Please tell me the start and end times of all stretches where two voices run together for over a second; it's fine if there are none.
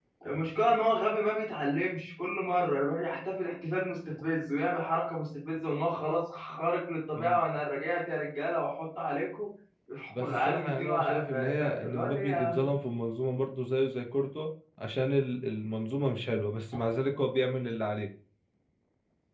10.1-12.7

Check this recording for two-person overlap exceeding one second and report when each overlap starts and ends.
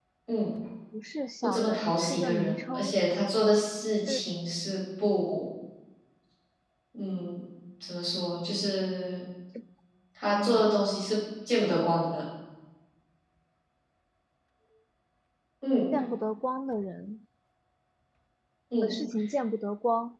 1.4-3.0

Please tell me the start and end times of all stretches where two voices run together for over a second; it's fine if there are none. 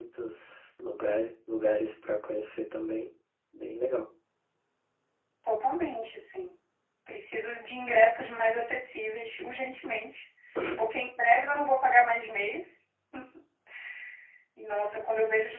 none

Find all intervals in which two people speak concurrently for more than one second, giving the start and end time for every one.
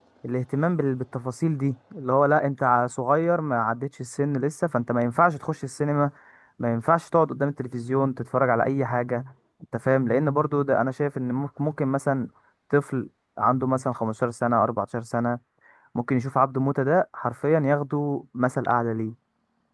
none

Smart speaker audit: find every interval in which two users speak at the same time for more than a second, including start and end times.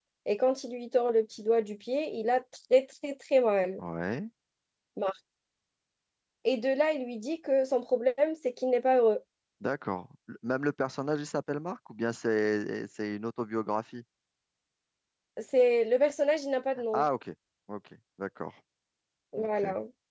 none

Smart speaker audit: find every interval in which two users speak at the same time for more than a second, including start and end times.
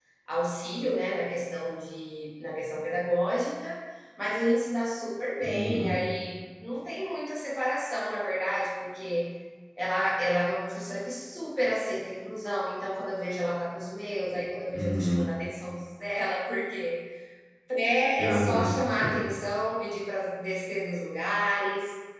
none

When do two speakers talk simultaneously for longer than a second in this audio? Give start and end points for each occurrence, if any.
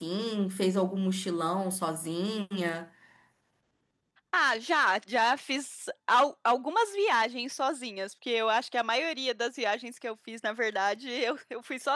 none

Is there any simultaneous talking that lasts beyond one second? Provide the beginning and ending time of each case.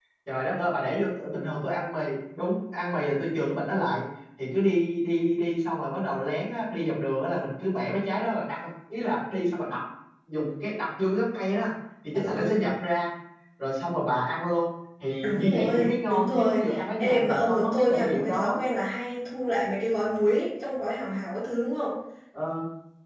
15.2-18.6

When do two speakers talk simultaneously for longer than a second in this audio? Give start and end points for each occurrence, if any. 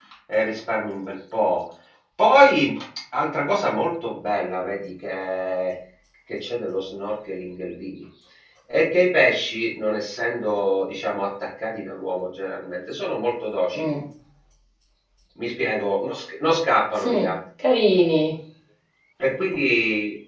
none

